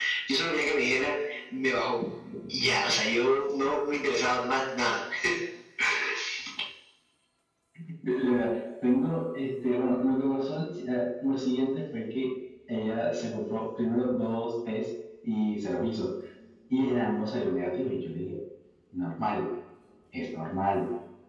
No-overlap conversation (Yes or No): Yes